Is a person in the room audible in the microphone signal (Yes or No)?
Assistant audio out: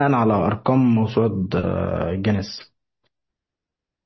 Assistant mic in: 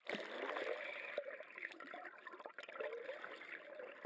No